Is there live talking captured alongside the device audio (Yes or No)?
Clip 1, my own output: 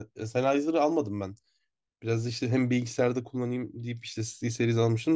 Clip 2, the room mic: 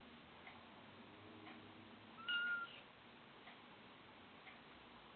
No